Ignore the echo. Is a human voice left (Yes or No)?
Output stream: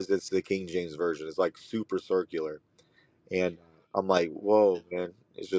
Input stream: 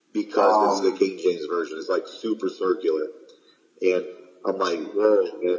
Yes